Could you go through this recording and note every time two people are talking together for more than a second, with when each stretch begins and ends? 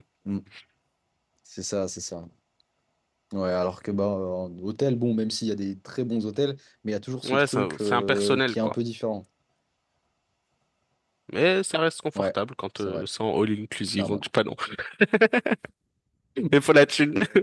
7.2-8.7

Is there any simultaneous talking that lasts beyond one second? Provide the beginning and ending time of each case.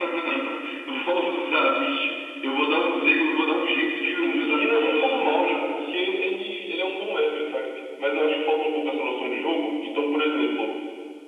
4.0-5.9

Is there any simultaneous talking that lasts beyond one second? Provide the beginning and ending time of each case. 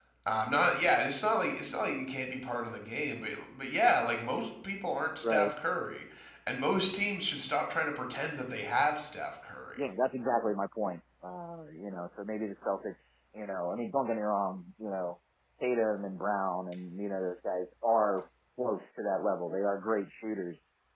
none

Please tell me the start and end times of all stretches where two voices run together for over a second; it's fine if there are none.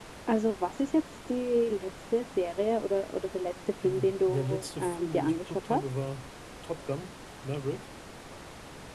3.8-5.8

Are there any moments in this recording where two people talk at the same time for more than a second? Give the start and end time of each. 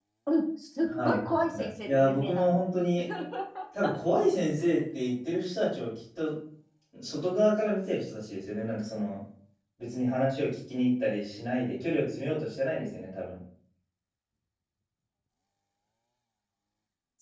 0.9-2.6

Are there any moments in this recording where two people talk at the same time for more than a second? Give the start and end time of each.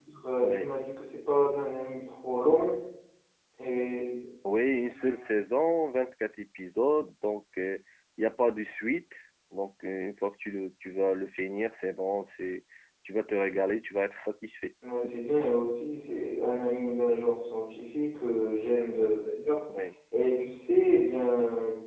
none

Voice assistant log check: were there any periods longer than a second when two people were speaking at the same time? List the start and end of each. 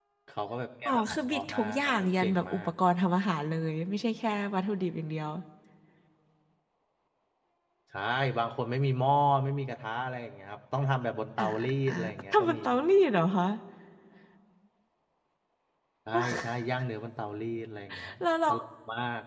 0.8-2.7

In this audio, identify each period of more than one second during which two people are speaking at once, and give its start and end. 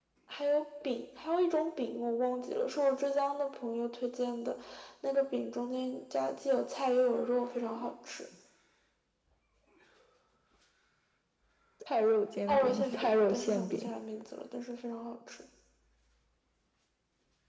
12.5-13.9

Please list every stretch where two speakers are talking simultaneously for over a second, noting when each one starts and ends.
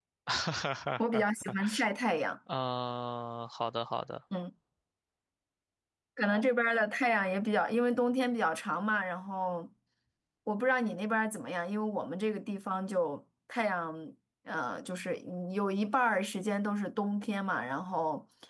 none

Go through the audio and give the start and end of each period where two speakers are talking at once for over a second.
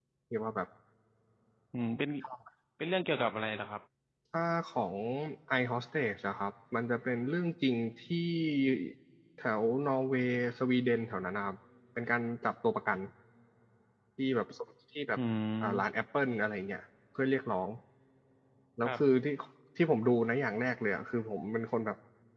none

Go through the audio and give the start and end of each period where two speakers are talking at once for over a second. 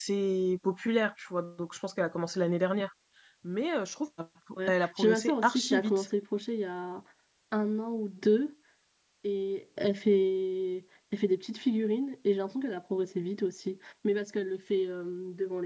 4.8-6.1

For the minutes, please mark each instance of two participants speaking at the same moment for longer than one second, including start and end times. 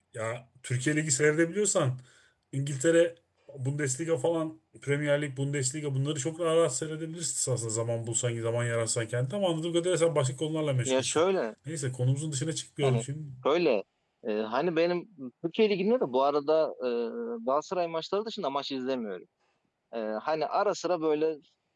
none

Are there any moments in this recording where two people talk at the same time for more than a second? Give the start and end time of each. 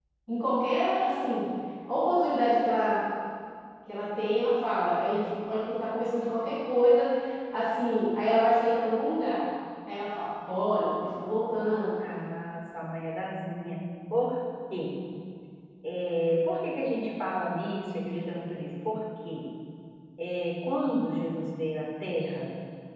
none

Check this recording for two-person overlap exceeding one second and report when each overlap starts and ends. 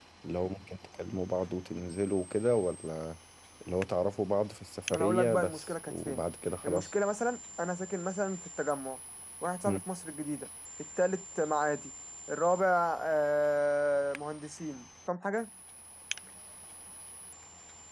4.9-6.2

